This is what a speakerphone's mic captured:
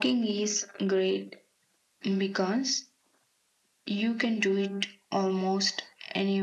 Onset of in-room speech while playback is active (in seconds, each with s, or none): none